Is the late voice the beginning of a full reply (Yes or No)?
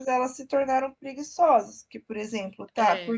No